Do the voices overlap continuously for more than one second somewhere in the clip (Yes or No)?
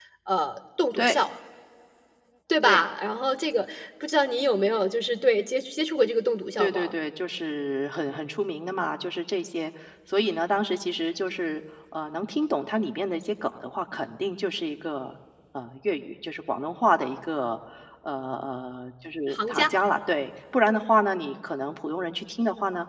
No